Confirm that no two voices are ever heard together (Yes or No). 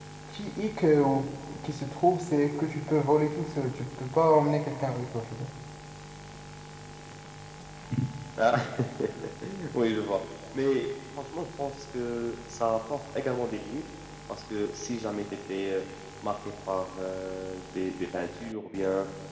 Yes